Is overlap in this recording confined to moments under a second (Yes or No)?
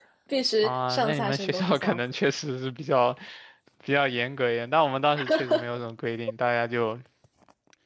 No